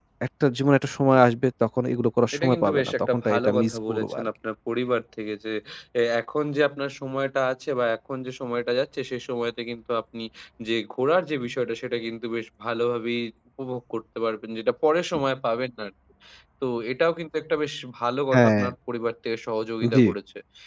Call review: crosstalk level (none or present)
present